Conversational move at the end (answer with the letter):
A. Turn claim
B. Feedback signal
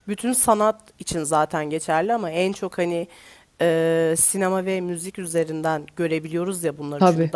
B